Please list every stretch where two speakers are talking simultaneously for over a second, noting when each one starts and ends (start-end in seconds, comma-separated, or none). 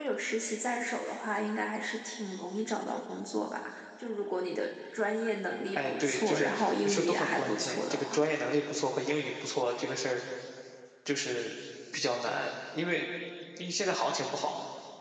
5.8-8.2